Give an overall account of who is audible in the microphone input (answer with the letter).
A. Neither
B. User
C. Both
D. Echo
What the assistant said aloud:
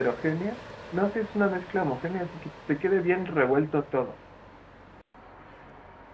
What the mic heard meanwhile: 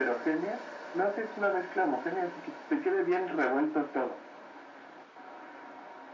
D